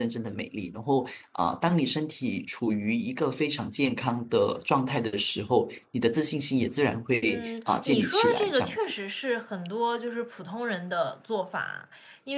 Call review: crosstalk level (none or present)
present